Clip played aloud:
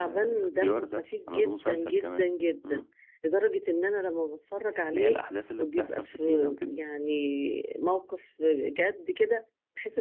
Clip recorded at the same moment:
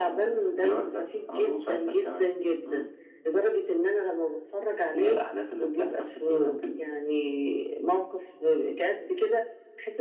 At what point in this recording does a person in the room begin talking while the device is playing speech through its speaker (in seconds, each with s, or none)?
none